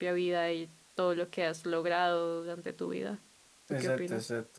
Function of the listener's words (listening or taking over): taking over